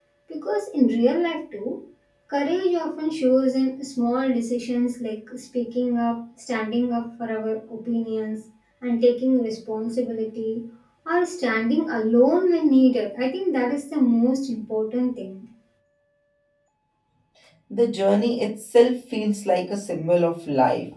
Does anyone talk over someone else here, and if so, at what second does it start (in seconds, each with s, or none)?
none